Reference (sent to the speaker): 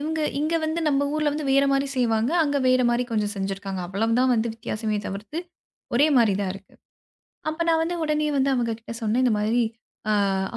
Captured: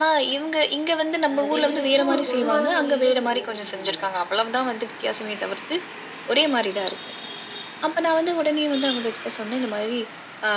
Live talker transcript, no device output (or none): அ 2 பேத்துக்கும் ஒரு பொதுவான மொழியில நீங்க பேசிக்கிட்டீங்க.